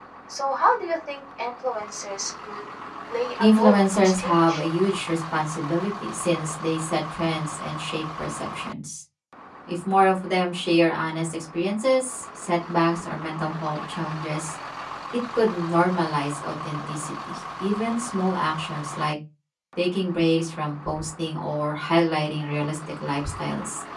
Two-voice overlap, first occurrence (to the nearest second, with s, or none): 3 s